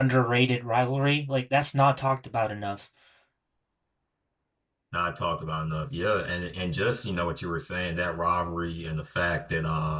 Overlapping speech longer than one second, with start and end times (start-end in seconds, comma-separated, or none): none